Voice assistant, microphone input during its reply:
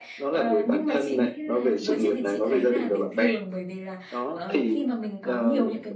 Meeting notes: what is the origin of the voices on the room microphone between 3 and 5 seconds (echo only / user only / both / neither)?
both